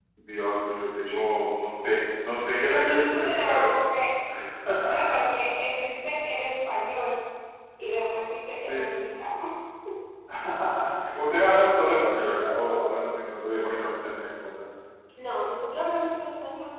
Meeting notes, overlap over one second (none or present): present